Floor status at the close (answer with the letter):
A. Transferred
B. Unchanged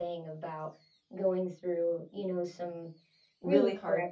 A